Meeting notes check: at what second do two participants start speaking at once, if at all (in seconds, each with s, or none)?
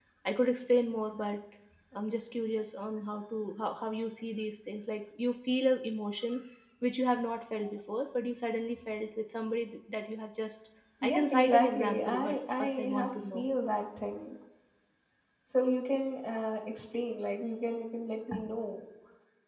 11.0 s